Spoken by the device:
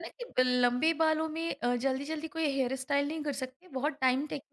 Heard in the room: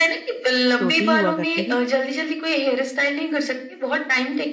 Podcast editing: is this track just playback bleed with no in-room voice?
No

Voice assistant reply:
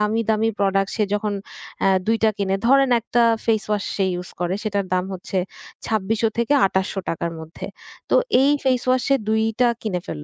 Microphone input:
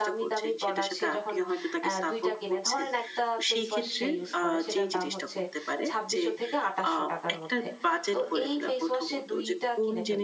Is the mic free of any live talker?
No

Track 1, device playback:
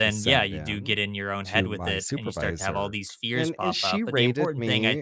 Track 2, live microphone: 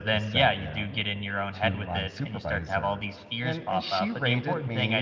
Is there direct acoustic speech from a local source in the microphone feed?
No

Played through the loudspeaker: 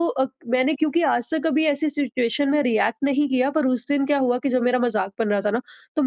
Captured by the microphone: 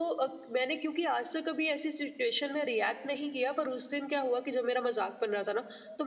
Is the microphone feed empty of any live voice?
Yes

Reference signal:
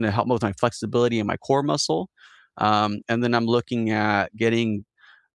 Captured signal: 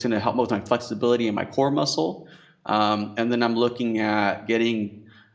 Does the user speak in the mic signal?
No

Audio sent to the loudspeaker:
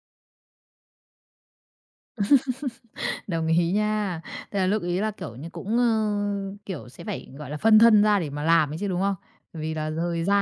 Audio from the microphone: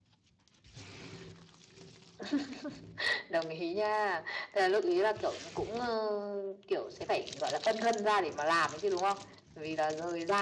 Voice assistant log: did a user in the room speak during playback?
No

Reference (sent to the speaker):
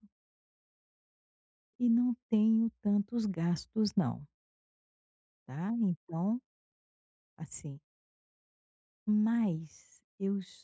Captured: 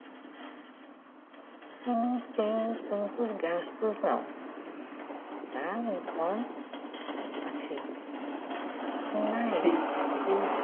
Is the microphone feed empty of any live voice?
No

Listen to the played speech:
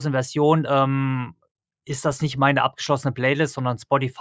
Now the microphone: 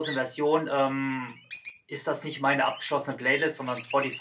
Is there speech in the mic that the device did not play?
No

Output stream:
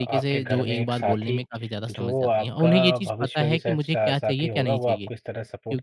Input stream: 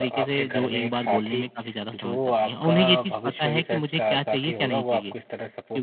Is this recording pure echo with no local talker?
Yes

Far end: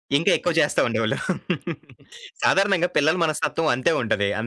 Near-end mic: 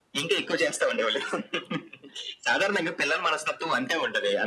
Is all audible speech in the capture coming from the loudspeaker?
Yes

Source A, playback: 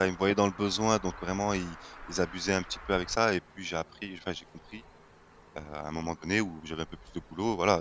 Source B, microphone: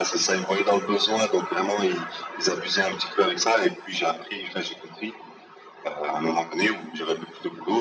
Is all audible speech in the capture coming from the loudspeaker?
Yes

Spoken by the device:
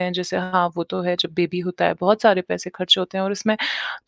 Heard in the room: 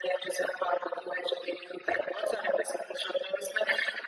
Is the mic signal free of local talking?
Yes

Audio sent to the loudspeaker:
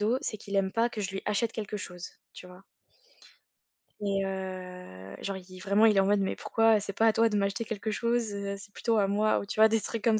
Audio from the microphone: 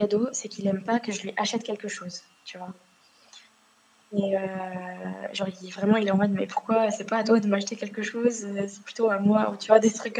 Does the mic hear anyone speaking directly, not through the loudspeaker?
No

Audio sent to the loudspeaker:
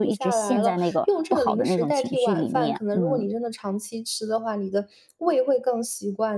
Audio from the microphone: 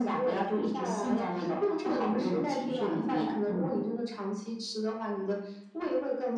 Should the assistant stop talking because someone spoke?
No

